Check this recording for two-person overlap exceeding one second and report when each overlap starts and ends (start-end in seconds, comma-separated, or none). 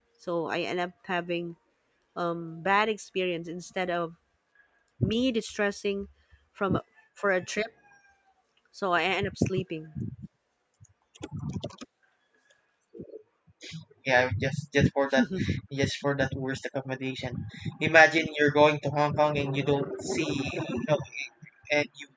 none